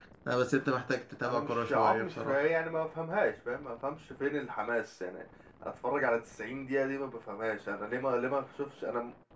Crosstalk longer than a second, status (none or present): present